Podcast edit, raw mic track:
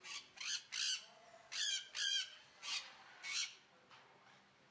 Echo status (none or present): none